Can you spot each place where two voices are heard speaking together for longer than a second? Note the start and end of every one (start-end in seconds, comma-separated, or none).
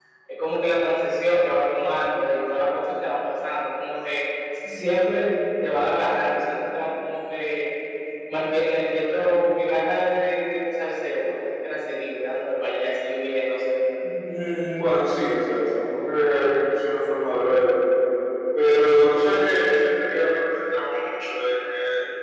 none